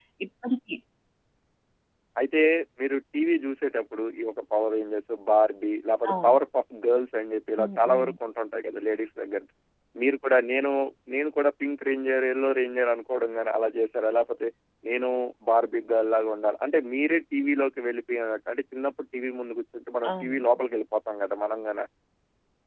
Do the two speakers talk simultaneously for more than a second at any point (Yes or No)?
No